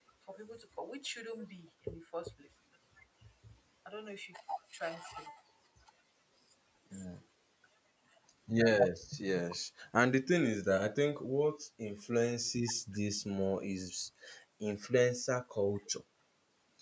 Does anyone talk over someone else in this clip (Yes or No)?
No